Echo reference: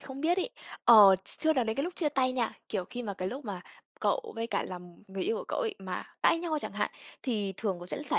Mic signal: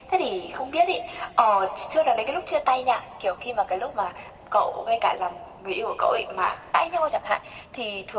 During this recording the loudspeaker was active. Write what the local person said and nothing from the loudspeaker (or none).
none